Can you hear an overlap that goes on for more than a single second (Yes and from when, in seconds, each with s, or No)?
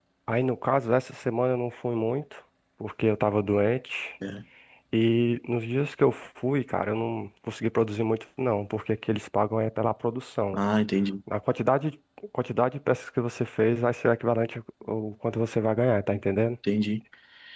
No